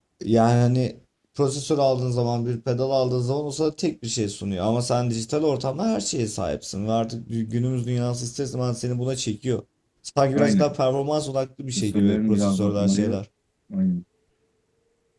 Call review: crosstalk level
present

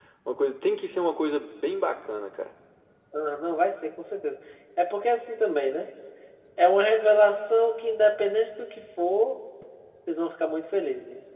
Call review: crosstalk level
none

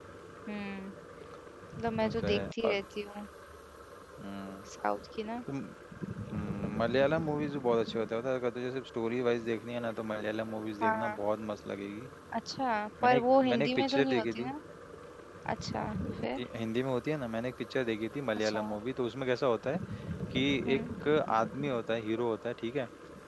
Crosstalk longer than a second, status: present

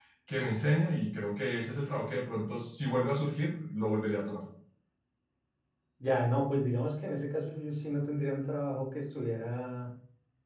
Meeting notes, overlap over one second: none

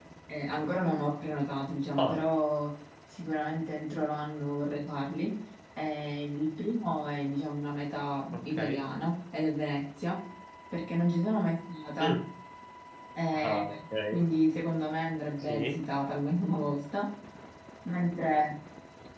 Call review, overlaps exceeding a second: none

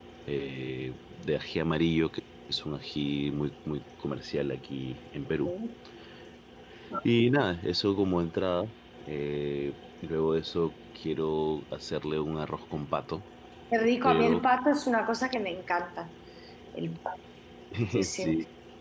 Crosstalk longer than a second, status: none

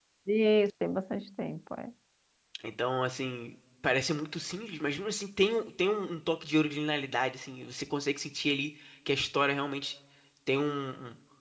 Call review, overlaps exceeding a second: none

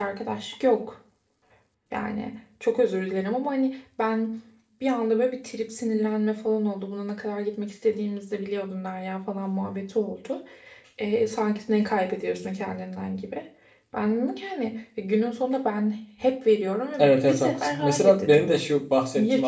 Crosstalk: present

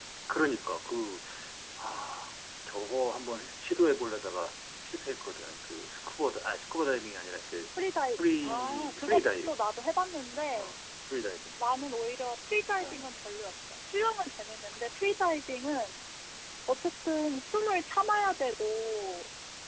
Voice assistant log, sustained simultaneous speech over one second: present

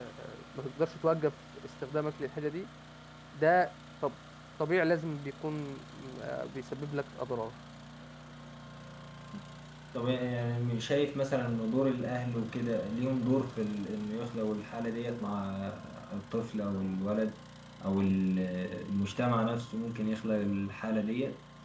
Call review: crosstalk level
none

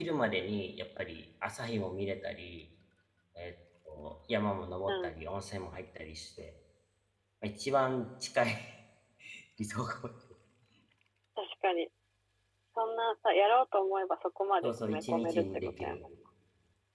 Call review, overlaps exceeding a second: present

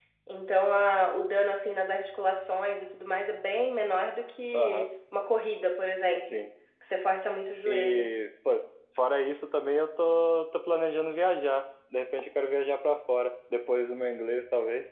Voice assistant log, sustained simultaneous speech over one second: none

